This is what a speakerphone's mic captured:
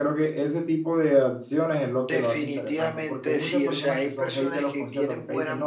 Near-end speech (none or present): present